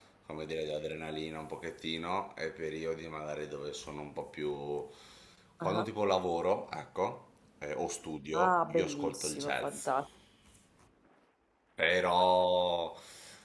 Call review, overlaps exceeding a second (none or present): present